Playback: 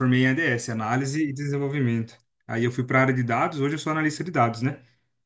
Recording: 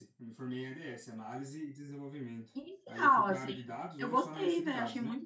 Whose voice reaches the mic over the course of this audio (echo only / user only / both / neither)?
both